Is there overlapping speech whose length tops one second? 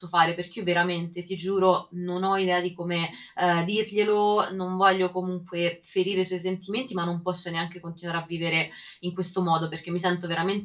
No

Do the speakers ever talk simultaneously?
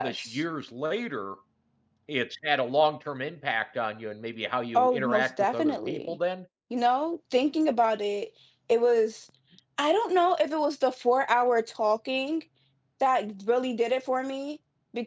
Yes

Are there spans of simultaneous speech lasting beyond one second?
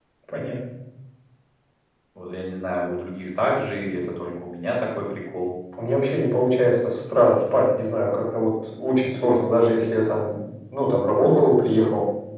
No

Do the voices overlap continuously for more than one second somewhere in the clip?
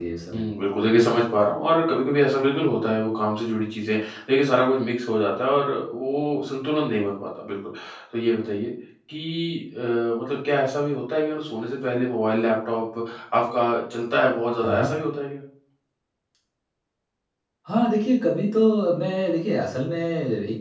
No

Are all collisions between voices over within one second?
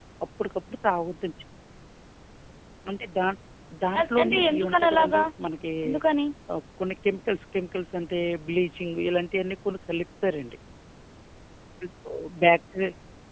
No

